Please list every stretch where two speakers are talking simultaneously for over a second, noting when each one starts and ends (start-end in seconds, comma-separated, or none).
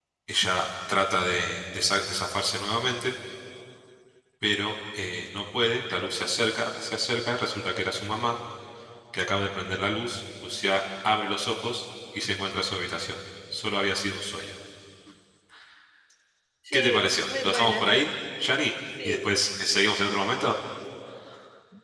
16.7-18.1